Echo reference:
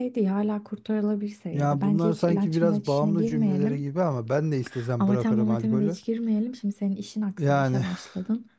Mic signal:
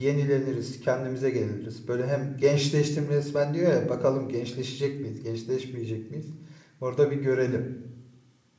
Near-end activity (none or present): present